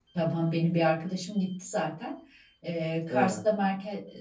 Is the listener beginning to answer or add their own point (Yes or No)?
No